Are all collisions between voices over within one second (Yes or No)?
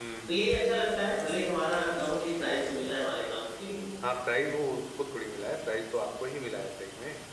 Yes